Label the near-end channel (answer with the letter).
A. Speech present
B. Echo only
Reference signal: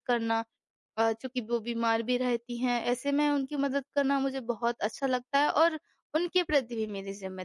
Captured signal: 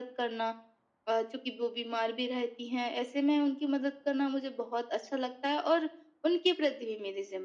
B